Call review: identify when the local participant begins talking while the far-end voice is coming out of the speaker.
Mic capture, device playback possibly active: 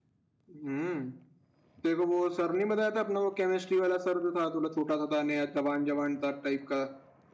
0.5 s

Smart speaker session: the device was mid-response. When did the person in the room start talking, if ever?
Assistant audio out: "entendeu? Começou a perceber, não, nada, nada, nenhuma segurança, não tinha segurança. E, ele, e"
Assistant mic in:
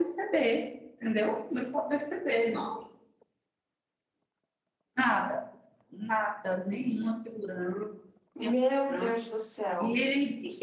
8.4 s

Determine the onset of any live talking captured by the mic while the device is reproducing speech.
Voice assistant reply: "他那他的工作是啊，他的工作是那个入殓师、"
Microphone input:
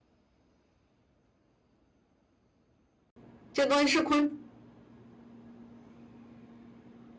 3.5 s

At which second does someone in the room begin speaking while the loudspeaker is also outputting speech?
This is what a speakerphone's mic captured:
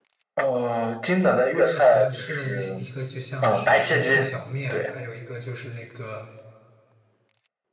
1.5 s

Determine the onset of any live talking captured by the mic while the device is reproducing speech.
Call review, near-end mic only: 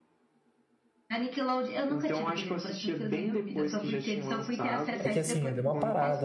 5.0 s

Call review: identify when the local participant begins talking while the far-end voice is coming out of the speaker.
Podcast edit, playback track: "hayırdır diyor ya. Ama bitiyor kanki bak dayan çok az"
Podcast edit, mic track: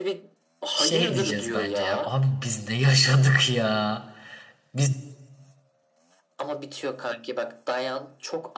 0.7 s

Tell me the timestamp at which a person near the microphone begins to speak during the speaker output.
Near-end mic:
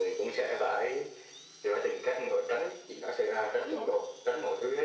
3.6 s

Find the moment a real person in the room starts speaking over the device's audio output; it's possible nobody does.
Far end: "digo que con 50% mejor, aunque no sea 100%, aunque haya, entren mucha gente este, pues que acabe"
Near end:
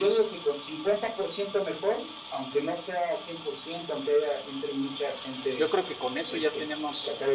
5.5 s

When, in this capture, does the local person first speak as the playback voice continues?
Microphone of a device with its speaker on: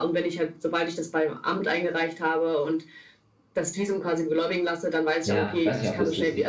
5.2 s

